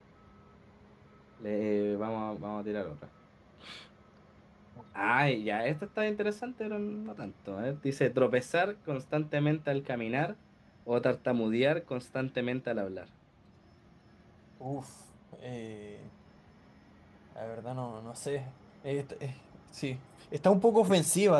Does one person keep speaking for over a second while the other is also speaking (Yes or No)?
No